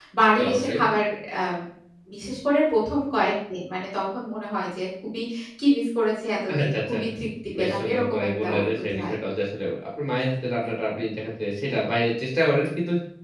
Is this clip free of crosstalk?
No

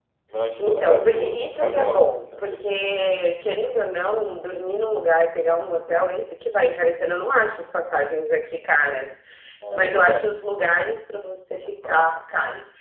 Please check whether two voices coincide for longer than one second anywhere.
Yes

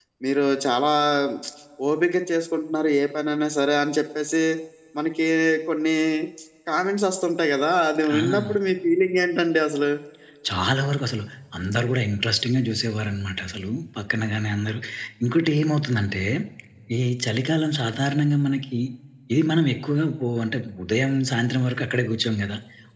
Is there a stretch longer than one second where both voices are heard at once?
No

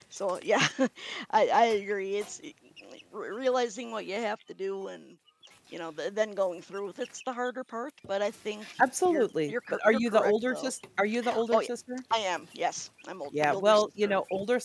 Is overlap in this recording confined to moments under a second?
No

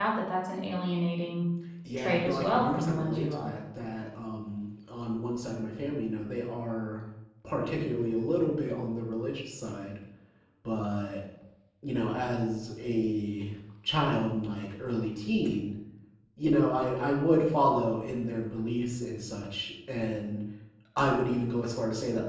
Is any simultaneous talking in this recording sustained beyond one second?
Yes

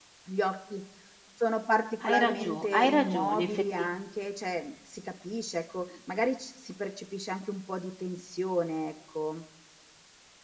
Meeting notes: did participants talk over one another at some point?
Yes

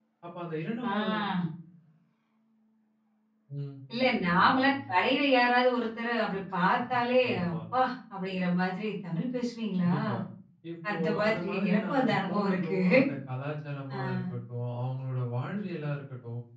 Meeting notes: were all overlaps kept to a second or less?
No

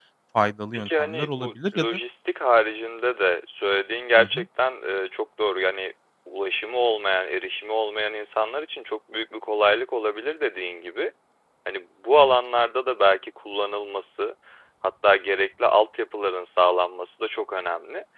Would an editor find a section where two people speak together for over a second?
Yes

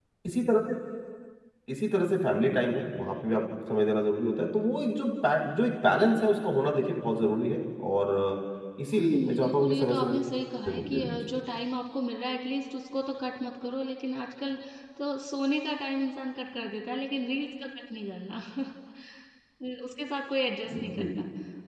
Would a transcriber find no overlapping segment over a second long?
No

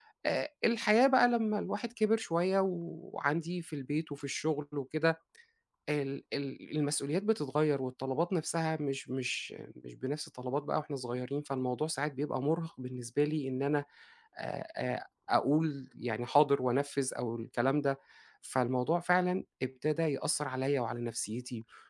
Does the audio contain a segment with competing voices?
No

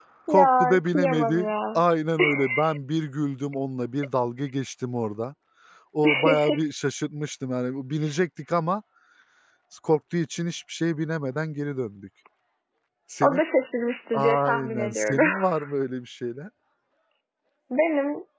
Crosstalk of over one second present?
Yes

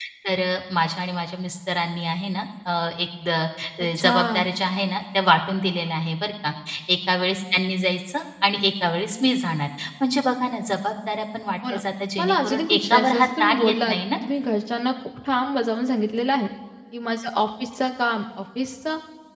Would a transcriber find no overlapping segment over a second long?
No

